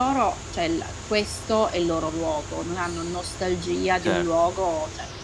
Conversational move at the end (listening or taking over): listening